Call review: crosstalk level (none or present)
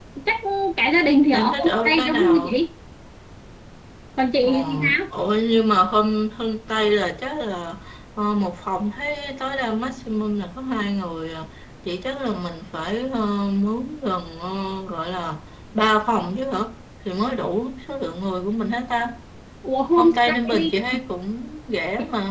present